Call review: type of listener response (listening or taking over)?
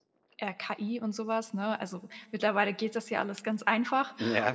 listening